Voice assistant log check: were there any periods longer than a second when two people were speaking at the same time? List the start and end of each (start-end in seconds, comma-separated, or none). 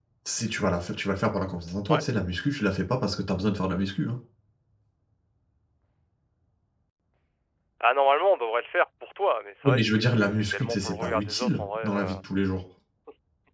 9.6-12.1